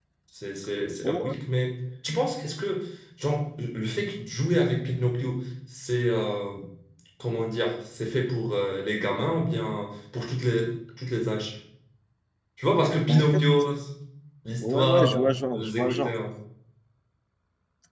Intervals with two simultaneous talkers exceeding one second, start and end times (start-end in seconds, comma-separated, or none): 14.6-16.1